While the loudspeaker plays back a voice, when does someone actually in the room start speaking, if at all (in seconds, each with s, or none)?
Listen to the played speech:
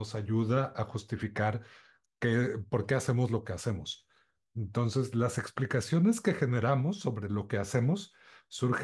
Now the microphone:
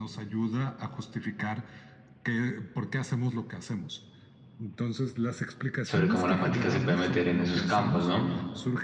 5.8 s